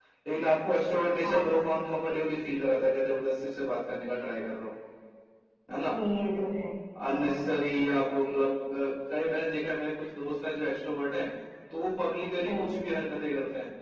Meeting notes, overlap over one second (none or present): none